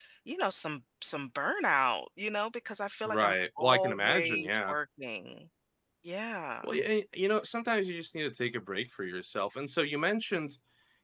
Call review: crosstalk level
present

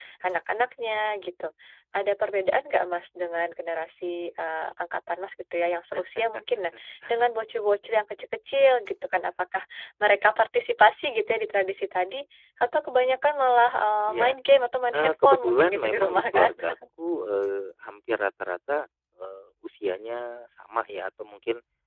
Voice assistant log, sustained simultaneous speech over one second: present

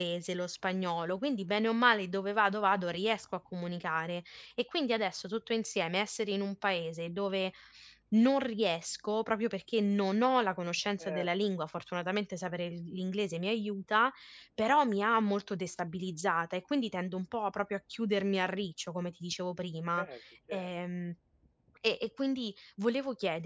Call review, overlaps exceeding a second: none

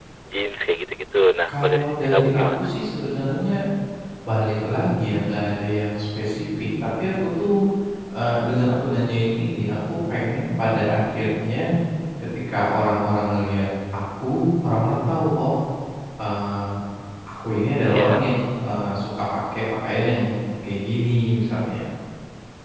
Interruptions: present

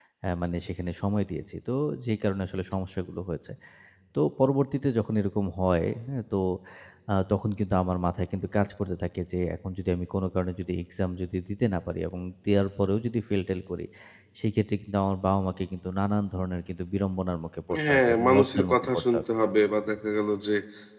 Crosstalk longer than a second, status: present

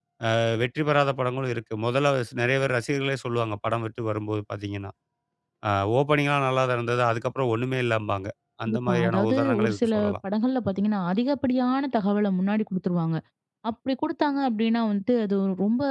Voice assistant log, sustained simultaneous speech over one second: present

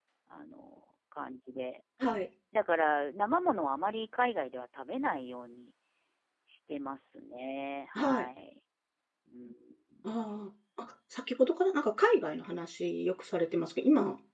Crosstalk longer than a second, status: none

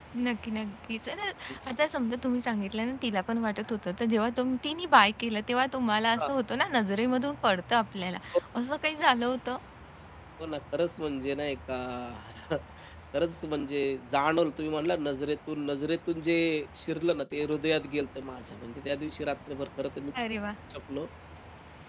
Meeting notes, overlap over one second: none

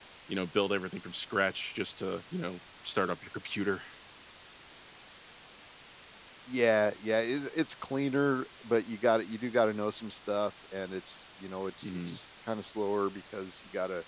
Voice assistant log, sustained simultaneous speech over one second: none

